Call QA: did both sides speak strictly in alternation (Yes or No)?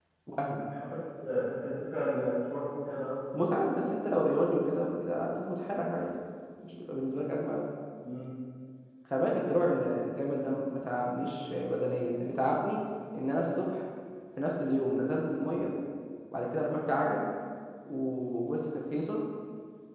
Yes